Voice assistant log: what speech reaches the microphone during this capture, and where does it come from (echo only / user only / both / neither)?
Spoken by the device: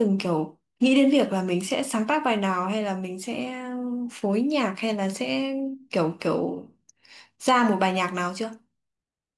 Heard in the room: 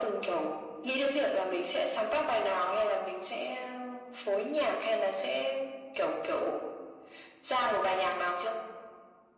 echo only